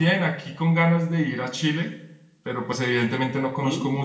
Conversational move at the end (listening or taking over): listening